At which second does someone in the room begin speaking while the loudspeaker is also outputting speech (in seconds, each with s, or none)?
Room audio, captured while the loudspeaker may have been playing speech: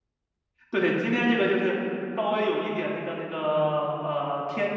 0.7 s